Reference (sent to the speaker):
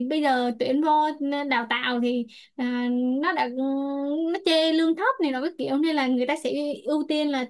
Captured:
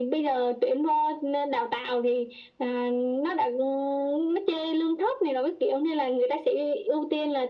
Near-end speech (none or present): none